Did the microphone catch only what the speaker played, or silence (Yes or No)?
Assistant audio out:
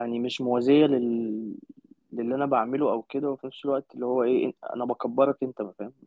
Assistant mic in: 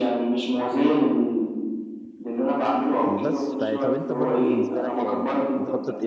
No